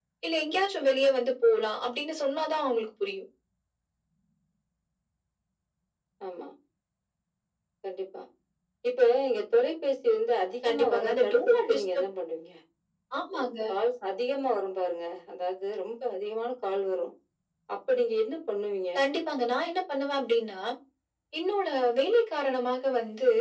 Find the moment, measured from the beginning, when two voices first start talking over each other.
10.6 s

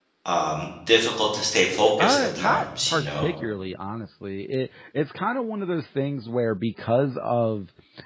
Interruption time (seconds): 2.0 s

